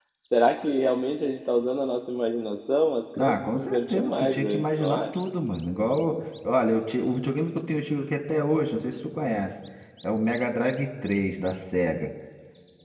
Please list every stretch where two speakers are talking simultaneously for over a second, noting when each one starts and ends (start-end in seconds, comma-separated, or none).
3.2-5.0